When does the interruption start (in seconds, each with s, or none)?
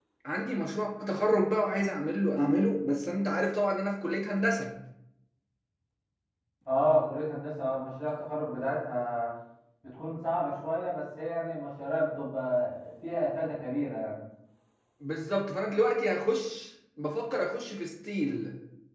none